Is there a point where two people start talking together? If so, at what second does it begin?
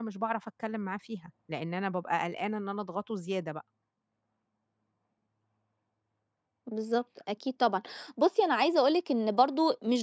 none

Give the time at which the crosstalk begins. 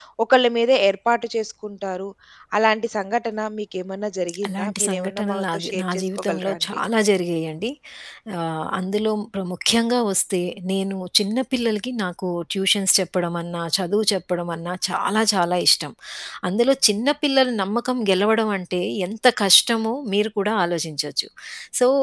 4 s

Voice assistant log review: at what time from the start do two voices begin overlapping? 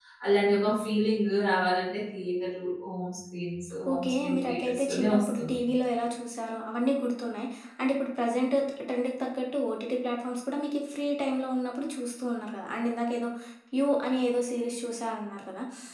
4 s

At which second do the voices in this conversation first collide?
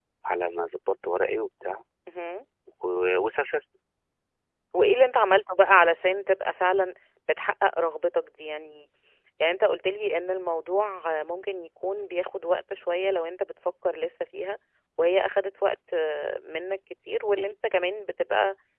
none

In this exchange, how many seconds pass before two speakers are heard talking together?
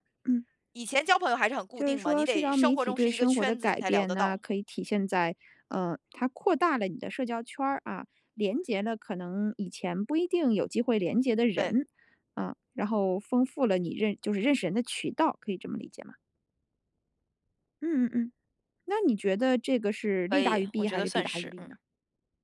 2 s

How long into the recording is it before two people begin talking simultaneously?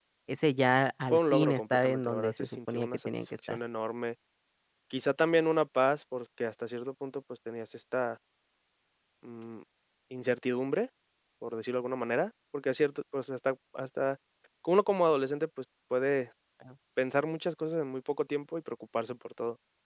1 s

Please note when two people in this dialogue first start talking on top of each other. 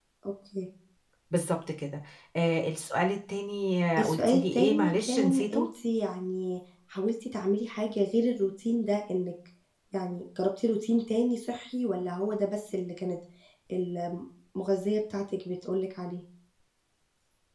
4 s

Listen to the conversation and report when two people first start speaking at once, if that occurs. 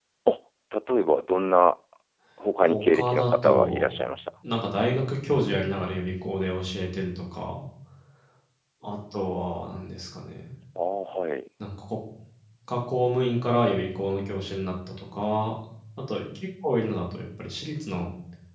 3 s

